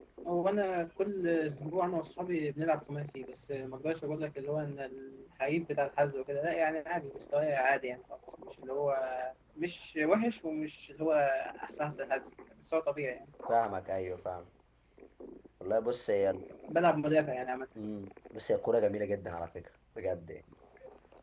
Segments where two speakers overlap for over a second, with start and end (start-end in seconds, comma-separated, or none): none